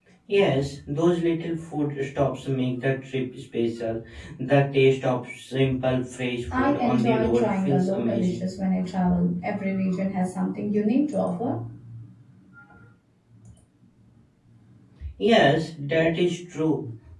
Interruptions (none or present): present